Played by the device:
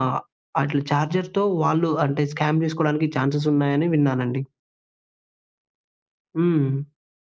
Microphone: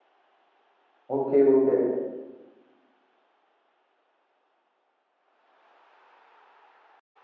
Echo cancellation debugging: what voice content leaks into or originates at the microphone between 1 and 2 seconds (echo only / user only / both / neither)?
user only